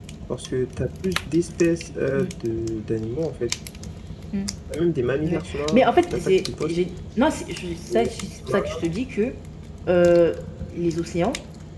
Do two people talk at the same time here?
Yes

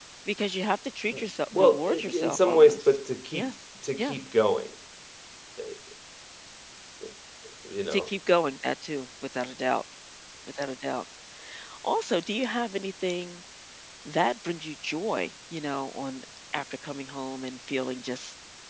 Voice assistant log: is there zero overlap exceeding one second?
No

